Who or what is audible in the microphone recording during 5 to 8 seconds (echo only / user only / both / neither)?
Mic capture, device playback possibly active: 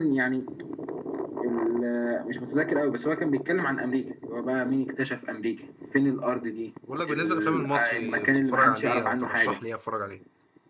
both